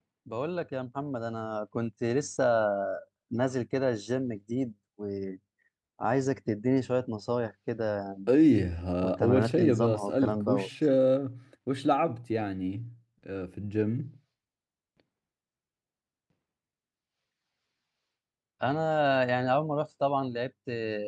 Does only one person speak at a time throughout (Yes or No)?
No